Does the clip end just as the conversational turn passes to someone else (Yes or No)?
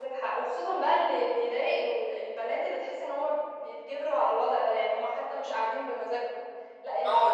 Yes